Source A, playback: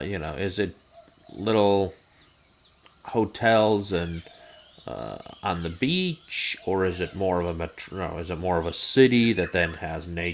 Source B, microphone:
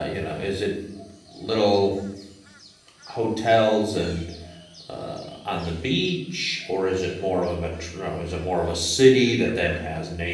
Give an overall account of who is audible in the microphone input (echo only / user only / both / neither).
echo only